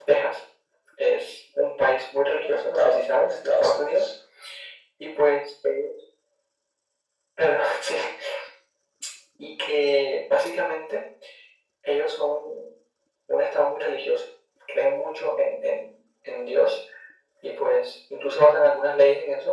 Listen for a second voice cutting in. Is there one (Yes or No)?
Yes